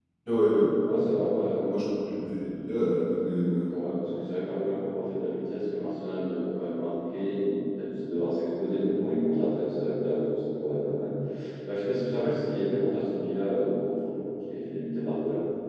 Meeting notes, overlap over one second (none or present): none